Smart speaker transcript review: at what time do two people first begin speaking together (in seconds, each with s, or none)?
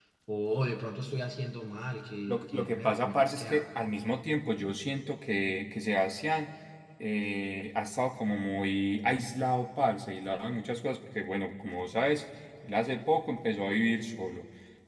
2.3 s